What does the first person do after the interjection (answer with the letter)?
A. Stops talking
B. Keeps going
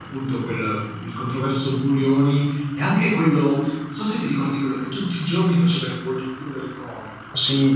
A